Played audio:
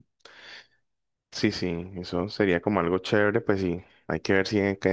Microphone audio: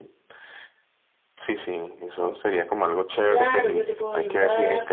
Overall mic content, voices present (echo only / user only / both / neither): both